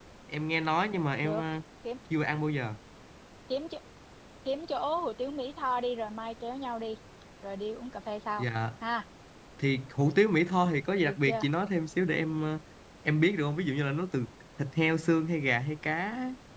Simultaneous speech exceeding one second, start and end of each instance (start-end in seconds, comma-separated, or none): none